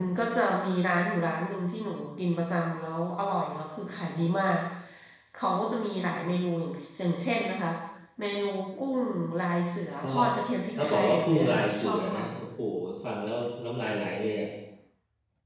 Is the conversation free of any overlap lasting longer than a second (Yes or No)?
No